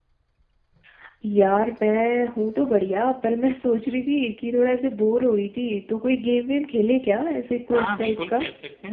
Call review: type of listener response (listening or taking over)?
taking over